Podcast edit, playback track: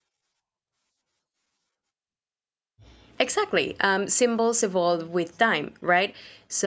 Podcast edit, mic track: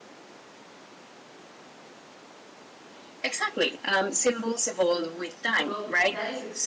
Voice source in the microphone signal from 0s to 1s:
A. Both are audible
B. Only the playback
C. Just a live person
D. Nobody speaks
D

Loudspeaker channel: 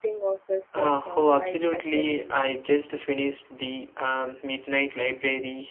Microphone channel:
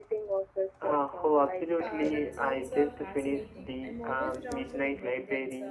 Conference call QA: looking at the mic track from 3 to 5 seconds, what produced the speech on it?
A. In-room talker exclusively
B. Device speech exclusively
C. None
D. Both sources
D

